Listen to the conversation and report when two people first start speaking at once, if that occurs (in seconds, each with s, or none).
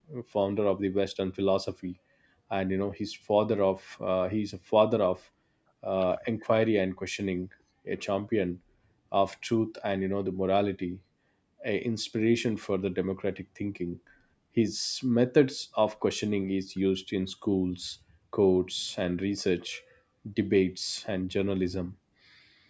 none